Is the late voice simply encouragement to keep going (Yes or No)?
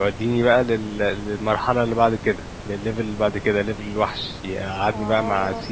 Yes